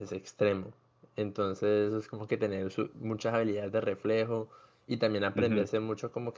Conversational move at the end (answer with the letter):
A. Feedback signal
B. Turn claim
A